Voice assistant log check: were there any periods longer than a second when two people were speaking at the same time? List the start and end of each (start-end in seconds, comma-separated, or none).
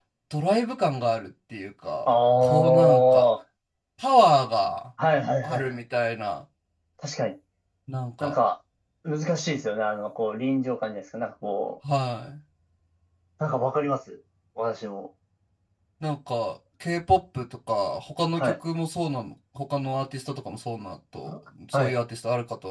2.1-3.3